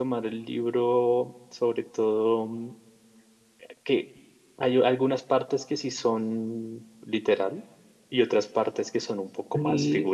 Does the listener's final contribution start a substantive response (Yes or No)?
Yes